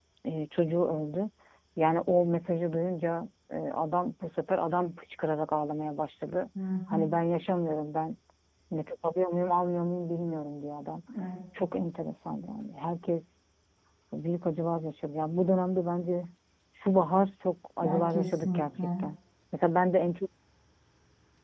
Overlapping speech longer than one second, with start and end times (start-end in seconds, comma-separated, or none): 17.8-19.1